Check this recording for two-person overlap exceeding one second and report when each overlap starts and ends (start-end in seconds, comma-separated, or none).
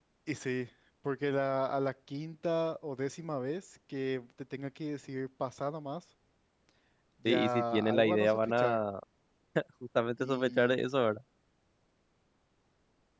7.2-8.8